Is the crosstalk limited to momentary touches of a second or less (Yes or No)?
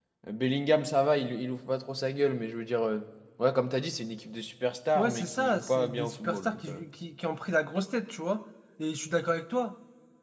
No